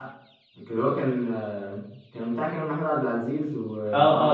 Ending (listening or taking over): taking over